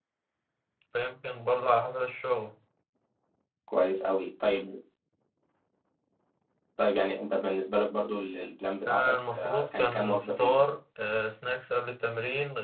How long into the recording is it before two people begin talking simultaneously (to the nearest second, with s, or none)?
9 s